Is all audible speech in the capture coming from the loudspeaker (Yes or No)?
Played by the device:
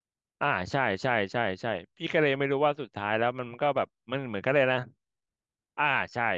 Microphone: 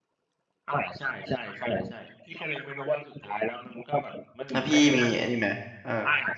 No